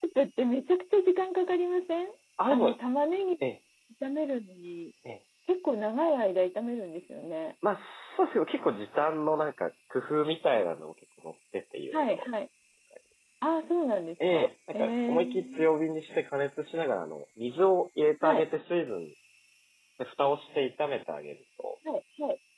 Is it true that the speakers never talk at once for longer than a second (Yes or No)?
No